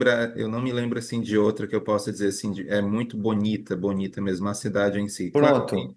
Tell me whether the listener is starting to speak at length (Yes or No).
No